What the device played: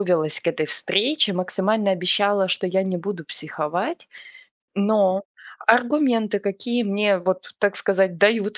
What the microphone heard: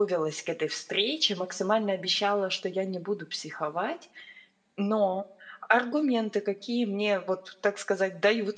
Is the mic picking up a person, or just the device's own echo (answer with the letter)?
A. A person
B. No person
B